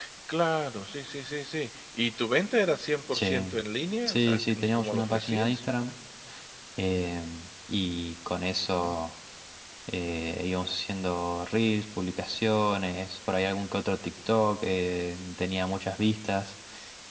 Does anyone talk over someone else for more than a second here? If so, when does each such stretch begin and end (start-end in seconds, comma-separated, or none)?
4.1-5.6